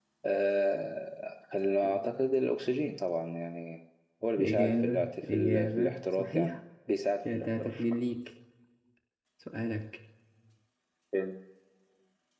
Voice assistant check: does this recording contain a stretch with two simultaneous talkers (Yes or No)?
Yes